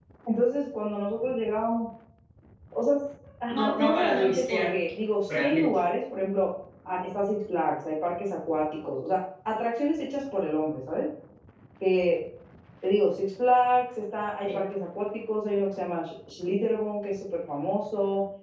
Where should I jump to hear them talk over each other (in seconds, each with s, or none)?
3.5 s